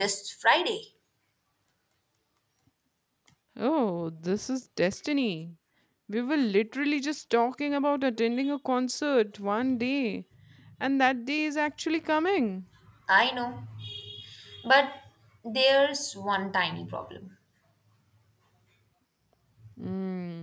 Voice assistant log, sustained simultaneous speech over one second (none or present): none